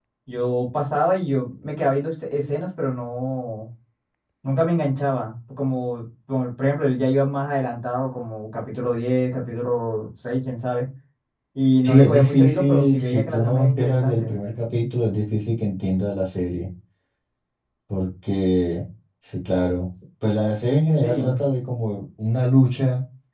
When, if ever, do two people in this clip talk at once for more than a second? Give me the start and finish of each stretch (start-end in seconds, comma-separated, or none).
11.8-14.3